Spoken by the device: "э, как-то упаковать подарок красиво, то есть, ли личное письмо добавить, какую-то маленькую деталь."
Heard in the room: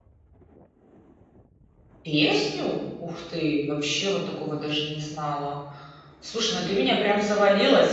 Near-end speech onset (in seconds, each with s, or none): 2.0 s